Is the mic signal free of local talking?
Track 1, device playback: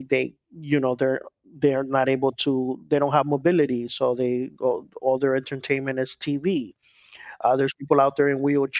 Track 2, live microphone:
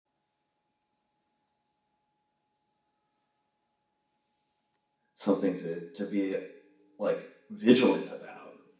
No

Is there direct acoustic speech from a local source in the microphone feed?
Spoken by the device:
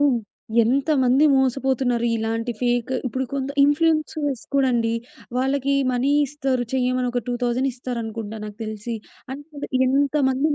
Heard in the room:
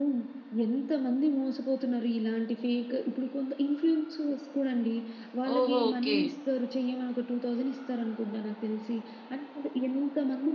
Yes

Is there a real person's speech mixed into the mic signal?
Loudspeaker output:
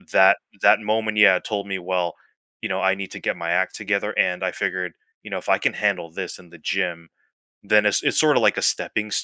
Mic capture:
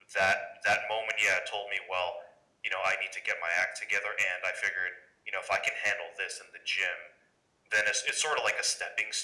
No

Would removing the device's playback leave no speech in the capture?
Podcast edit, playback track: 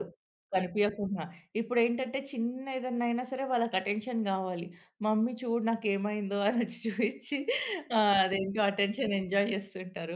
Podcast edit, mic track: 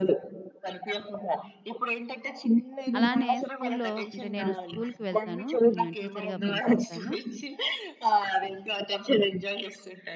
No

